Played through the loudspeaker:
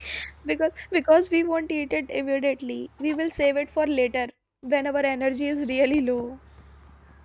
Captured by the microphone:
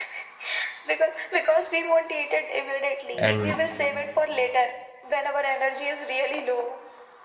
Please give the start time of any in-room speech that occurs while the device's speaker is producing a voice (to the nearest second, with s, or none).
3 s